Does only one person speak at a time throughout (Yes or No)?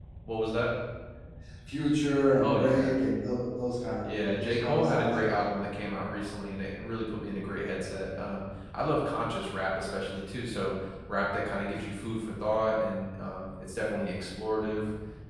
No